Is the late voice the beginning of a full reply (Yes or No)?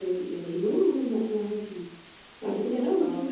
No